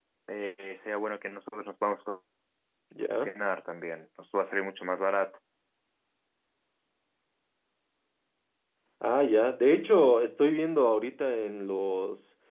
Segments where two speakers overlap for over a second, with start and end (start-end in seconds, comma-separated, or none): none